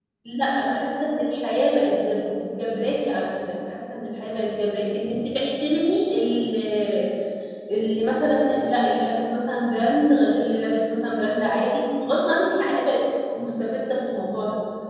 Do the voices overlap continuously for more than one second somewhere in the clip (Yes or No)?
No